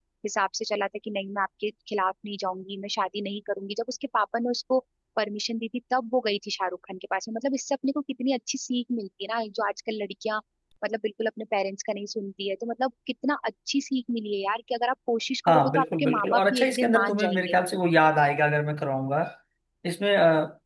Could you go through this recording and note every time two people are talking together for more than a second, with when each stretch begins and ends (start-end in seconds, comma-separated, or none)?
15.5-17.6